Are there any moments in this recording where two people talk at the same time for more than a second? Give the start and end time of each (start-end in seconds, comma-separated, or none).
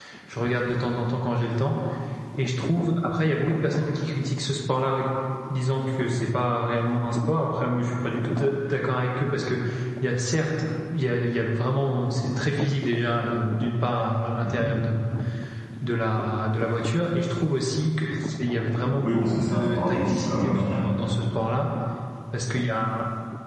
19.0-20.9